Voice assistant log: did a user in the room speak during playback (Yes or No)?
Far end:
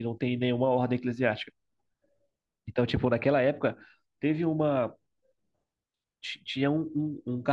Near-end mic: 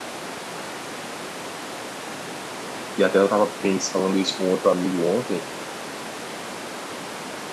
Yes